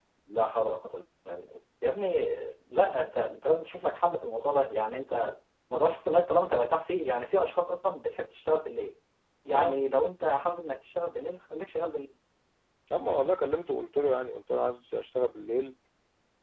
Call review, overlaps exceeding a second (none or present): none